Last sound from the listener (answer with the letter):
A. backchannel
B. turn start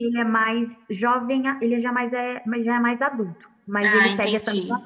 A